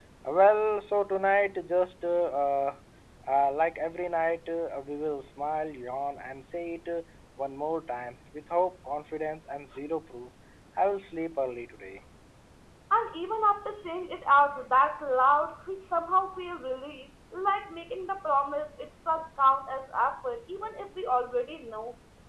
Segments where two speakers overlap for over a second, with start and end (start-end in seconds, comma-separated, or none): none